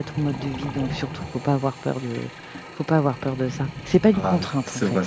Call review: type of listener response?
taking over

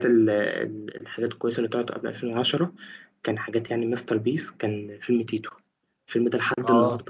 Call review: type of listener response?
listening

